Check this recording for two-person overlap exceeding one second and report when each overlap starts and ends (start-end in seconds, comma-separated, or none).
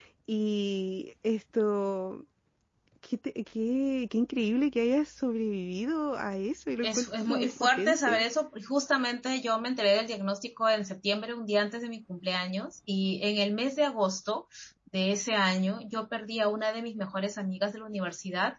6.8-8.2